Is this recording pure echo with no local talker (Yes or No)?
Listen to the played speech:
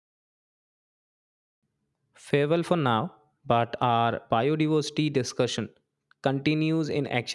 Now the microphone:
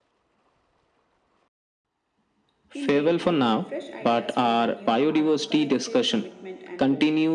No